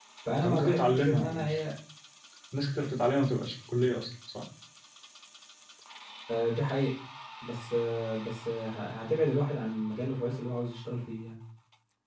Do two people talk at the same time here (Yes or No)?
Yes